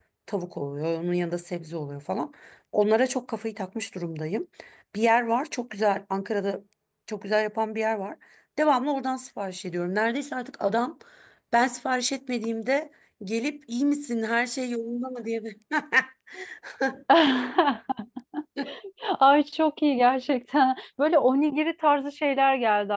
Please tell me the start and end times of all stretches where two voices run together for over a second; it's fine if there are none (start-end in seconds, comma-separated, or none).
none